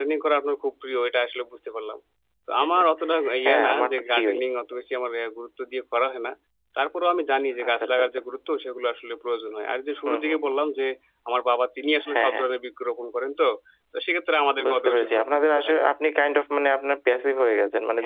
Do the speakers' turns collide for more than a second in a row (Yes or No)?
Yes